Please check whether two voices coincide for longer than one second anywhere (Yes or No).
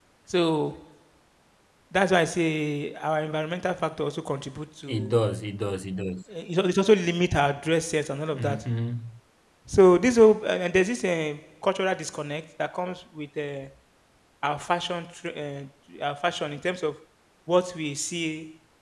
No